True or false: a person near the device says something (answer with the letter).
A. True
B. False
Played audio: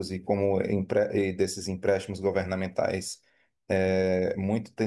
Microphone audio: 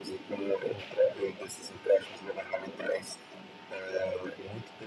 B